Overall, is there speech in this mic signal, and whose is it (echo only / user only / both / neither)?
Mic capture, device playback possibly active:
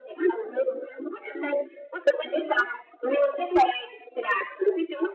echo only